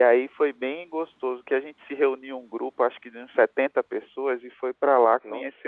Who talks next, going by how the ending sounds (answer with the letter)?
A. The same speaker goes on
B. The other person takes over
A